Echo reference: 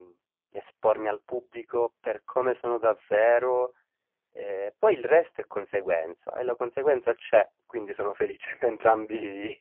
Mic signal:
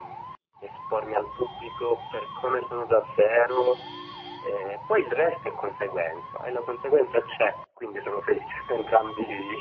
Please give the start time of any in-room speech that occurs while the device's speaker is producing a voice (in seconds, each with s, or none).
none